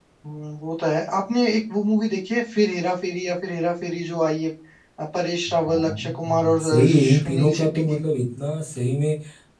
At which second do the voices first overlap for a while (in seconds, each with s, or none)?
5.7 s